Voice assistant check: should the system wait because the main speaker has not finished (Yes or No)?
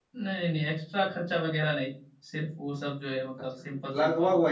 No